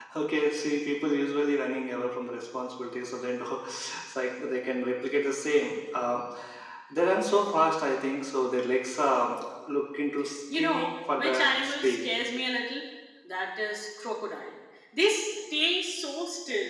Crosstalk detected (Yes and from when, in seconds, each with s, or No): Yes, from 10.5 s